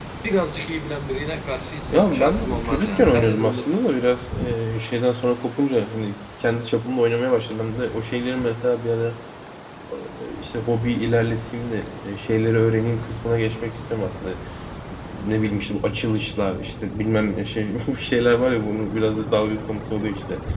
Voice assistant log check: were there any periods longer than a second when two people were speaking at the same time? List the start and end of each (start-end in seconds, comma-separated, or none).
1.9-3.8